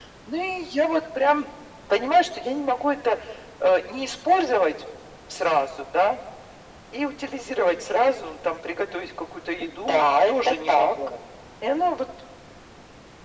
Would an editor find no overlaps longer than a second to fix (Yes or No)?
No